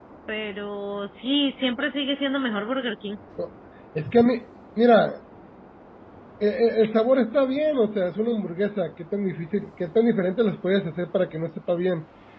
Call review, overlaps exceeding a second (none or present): none